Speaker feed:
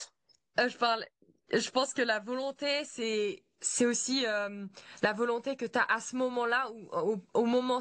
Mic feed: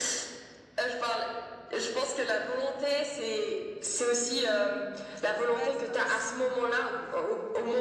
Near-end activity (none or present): present